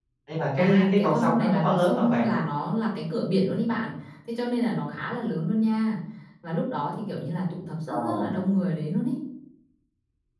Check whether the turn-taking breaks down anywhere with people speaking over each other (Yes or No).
Yes